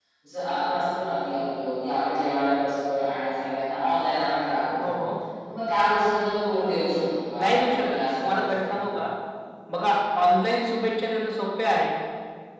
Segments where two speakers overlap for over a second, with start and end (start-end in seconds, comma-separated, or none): 7.4-8.8